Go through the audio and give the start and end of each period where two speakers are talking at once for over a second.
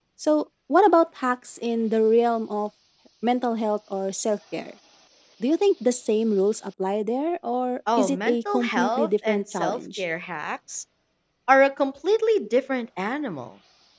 8.0-10.0

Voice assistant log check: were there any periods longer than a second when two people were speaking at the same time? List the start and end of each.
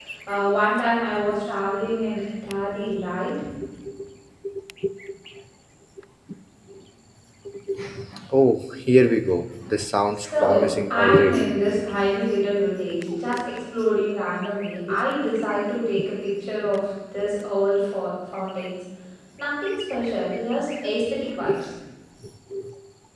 10.2-11.4

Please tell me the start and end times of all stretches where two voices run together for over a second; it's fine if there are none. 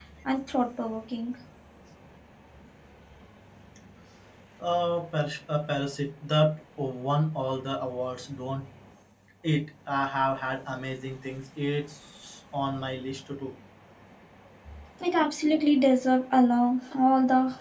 none

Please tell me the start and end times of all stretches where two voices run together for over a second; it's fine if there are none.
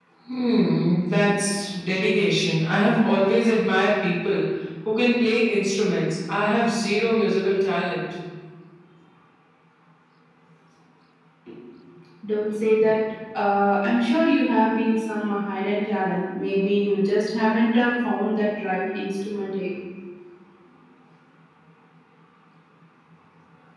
none

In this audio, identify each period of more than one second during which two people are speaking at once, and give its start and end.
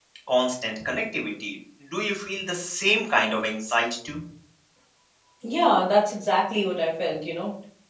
none

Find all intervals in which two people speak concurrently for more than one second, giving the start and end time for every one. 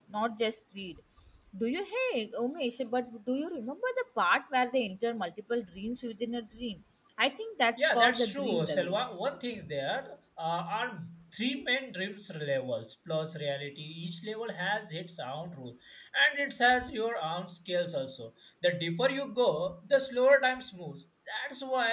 7.8-9.2

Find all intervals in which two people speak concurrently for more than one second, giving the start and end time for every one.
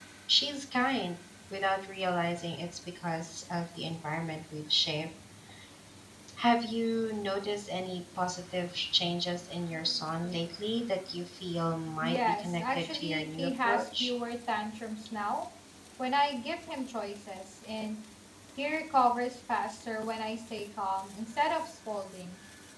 12.0-14.1

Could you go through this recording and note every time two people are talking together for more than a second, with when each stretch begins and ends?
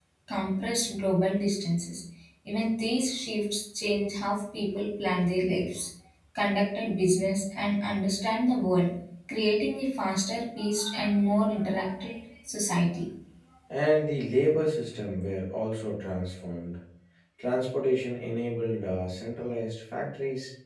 none

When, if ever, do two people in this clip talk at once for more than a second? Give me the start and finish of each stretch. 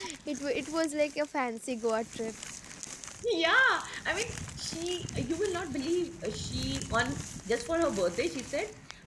none

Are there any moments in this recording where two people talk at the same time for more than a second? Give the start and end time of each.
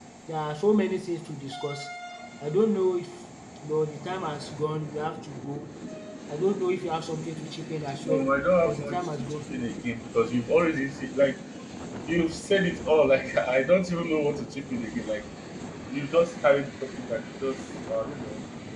8.1-9.4

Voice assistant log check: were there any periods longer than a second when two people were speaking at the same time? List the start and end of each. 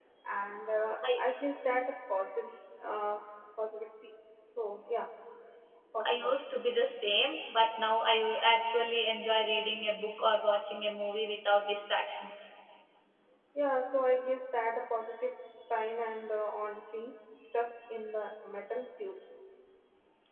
none

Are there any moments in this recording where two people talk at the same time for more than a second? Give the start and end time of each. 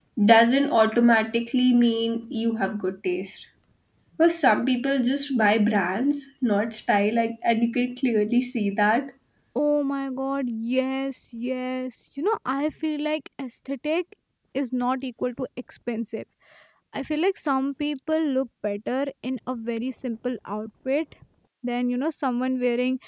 none

